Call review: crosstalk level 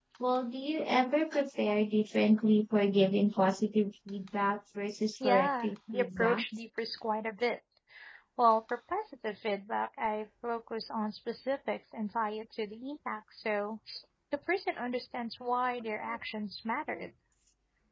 present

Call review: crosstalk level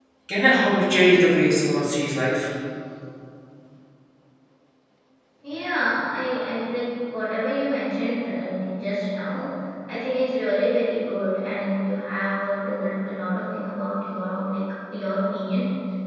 none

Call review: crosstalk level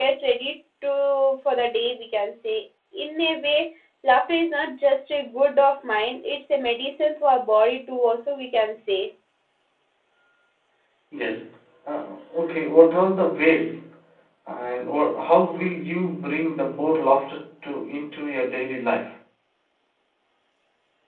none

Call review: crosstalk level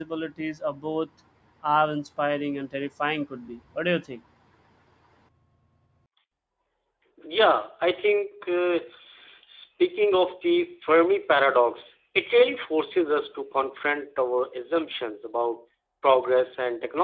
none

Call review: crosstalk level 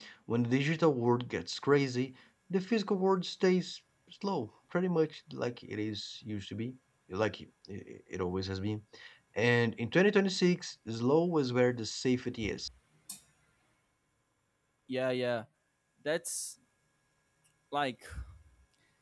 none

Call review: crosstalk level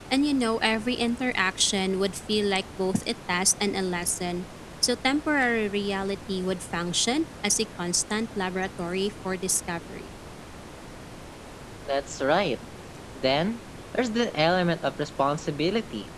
none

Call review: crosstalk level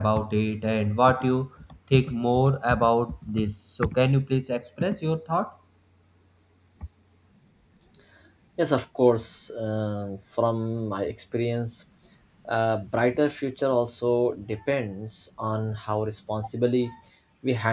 none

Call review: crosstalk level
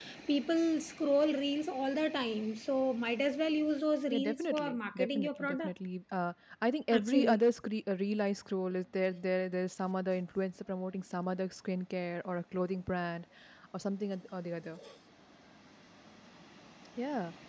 present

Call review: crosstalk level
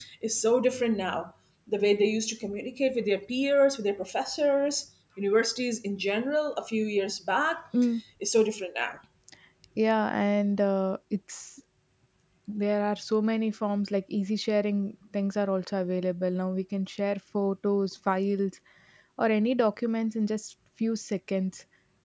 none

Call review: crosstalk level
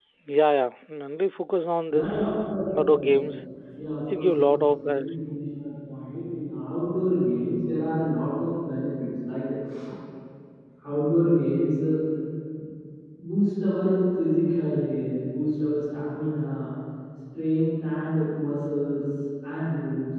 present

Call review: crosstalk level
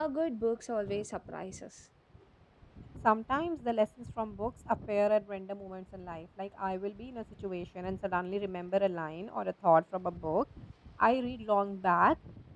none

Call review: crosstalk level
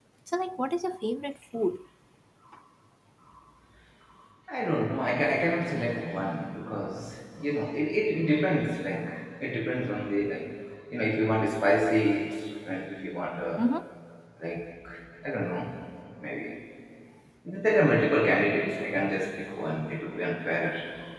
none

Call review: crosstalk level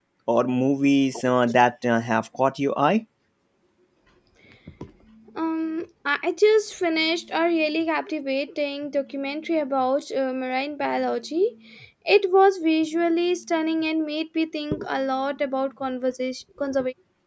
none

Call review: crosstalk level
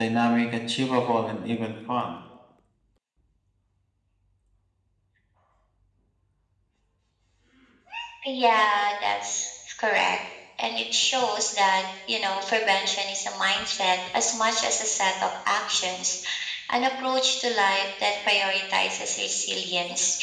none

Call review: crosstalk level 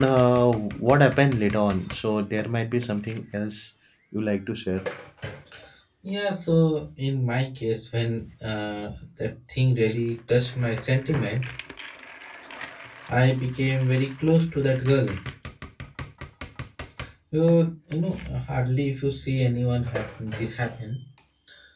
none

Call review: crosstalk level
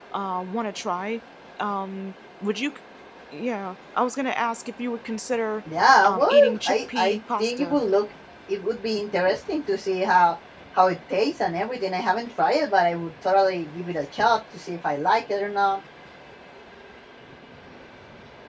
present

